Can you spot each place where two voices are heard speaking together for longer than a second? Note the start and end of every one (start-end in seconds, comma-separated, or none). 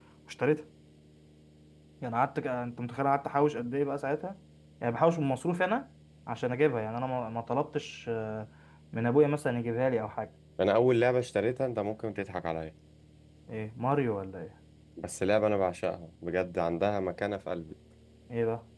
none